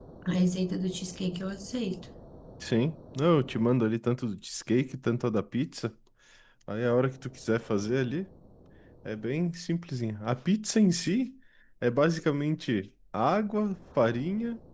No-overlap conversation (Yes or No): Yes